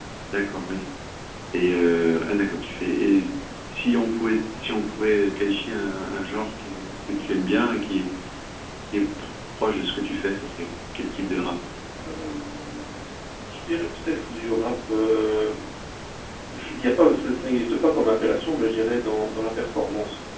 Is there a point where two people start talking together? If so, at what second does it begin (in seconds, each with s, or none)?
none